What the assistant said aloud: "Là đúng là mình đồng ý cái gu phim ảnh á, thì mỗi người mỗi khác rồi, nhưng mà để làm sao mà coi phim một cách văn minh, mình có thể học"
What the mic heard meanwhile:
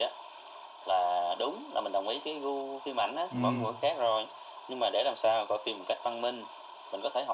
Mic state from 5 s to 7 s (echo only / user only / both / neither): echo only